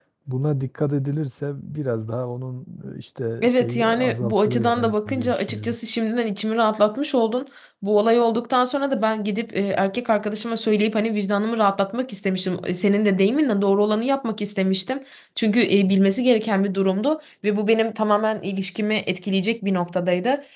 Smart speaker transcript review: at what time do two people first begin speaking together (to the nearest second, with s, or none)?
3 s